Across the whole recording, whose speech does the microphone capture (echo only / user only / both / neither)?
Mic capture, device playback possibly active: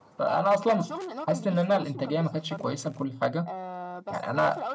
both